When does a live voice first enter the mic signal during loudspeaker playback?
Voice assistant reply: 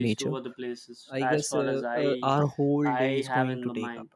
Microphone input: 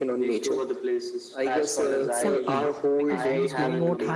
2.0 s

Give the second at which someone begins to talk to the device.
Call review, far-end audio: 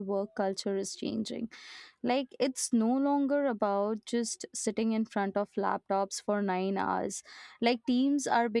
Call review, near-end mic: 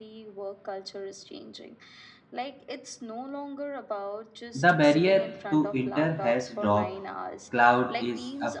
4.5 s

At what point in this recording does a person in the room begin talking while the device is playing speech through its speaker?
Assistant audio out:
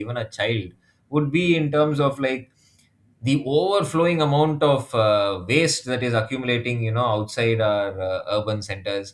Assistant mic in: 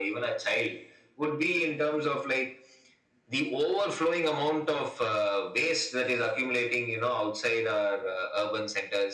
none

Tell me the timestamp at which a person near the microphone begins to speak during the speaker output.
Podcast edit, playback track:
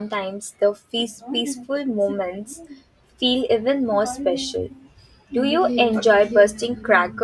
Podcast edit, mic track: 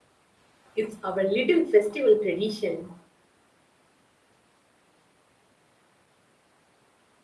0.8 s

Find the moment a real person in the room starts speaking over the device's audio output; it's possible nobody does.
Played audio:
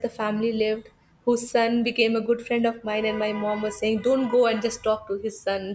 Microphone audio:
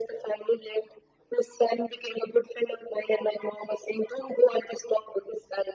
none

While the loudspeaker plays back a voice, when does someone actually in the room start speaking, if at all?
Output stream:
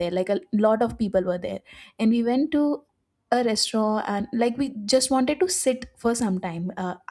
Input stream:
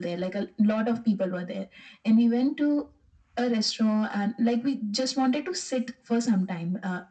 none

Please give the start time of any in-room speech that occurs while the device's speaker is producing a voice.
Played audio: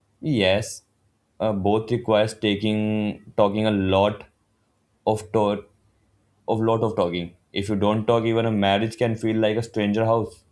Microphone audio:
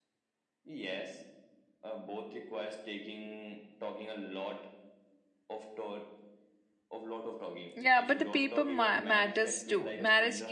7.8 s

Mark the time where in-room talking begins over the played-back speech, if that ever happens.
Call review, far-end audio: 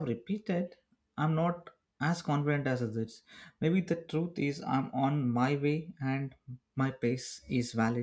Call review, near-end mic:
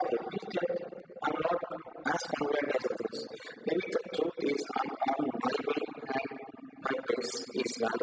none

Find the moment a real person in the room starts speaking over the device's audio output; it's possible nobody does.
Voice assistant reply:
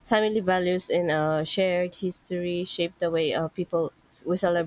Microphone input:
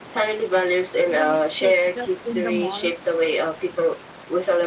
1.0 s

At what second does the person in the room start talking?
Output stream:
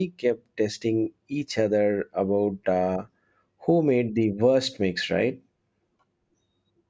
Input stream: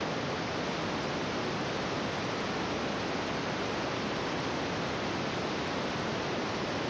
none

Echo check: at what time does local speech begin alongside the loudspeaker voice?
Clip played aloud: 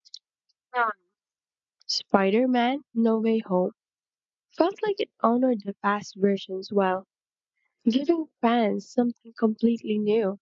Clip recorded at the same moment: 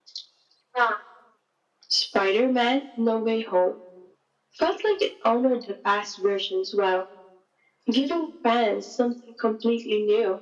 none

